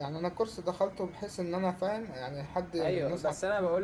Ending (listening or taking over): taking over